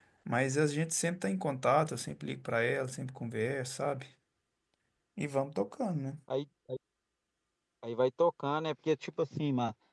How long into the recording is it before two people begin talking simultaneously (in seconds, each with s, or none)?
none